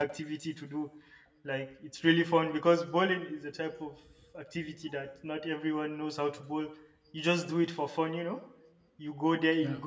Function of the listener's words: listening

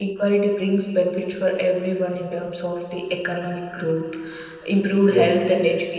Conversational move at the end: listening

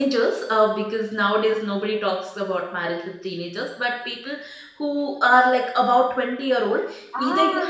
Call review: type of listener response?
listening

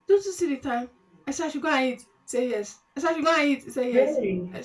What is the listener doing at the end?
listening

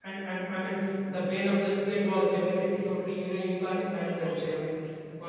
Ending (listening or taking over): listening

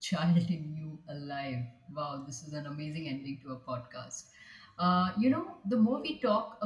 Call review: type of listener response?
listening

